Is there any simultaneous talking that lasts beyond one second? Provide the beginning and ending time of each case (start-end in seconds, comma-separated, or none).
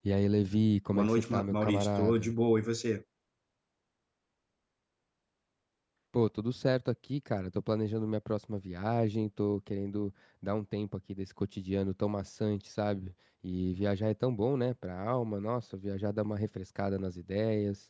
0.9-2.3